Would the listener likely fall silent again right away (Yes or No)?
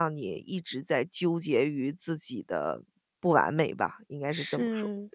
No